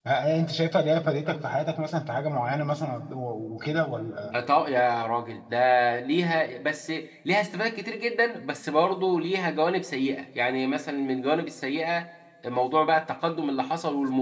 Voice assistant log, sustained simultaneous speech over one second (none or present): none